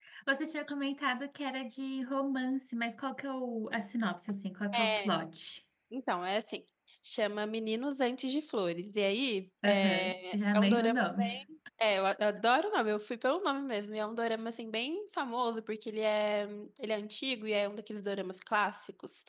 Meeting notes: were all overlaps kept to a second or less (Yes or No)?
No